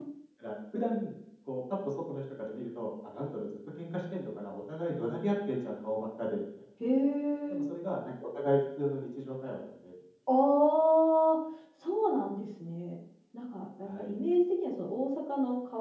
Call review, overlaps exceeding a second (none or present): none